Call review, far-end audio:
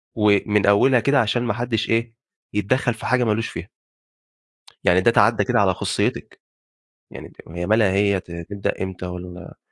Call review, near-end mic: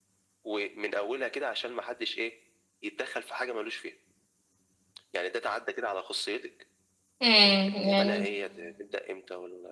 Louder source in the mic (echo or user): user